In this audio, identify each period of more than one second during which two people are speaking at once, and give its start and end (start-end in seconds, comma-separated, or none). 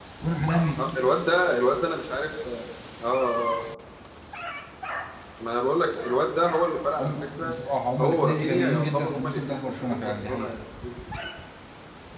8.0-10.5